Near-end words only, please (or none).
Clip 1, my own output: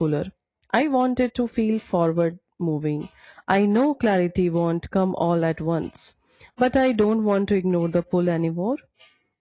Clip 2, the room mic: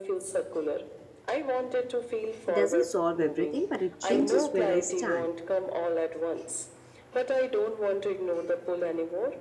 It doesn't solve everything, but it changes where I stand.